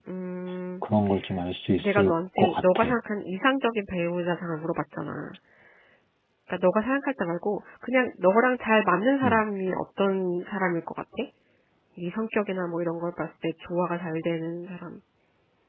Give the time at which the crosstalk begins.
1.8 s

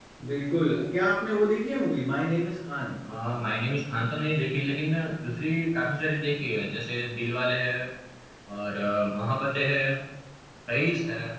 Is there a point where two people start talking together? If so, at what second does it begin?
none

